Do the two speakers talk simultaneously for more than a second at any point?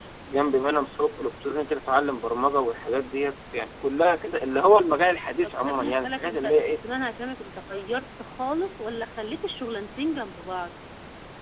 Yes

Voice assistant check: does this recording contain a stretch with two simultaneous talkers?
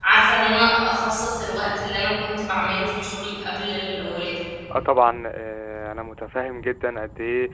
No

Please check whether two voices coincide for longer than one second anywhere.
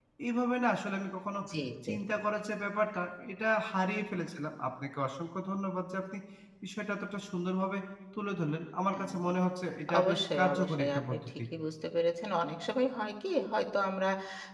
Yes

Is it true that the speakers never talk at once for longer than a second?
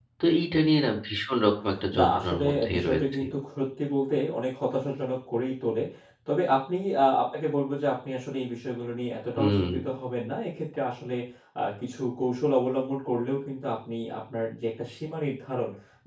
No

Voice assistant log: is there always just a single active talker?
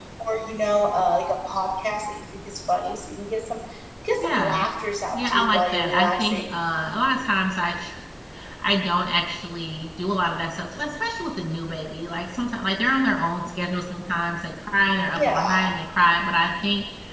No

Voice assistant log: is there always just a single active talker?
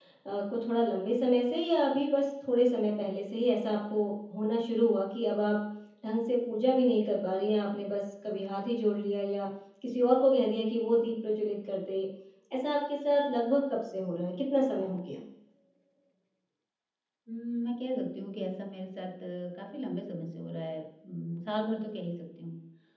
Yes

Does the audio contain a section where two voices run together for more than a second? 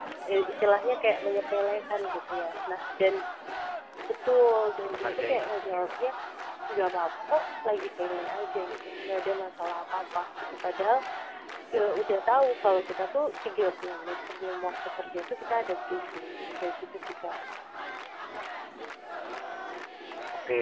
Yes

